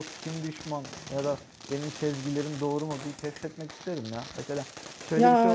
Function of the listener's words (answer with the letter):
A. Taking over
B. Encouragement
B